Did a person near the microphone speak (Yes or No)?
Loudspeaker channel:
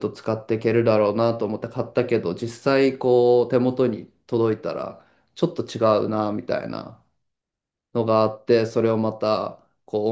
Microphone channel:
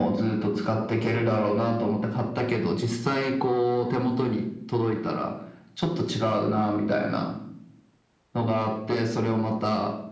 No